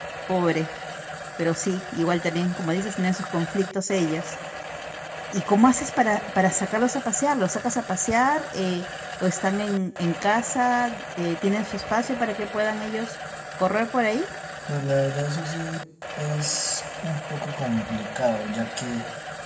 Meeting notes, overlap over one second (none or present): none